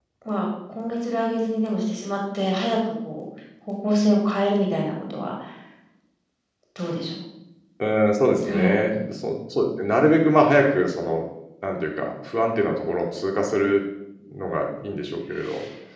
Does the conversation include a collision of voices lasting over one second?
No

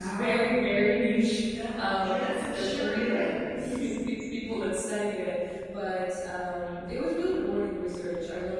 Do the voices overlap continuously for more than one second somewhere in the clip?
Yes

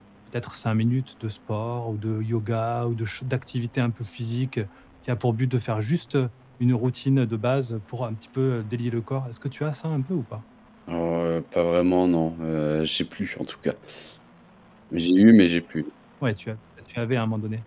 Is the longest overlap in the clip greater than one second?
No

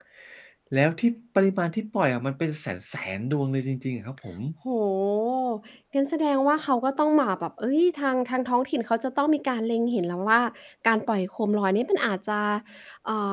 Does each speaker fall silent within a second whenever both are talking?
Yes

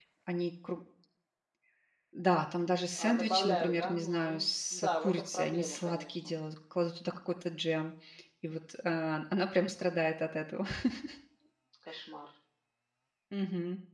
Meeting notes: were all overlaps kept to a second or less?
No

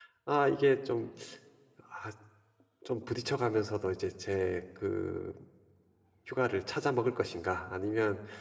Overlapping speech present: No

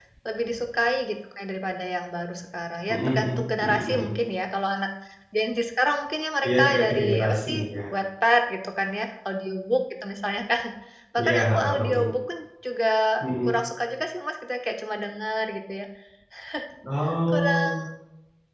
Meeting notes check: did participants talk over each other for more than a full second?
Yes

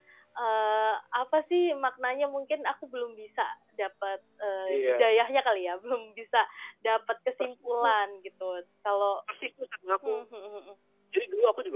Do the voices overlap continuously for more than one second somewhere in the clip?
No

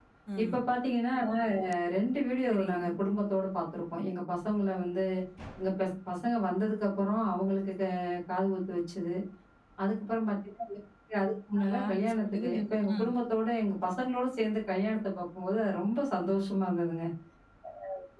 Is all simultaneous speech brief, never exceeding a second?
No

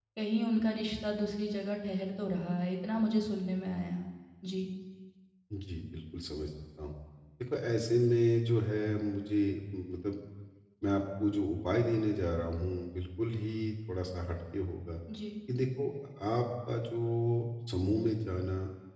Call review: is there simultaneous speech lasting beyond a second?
No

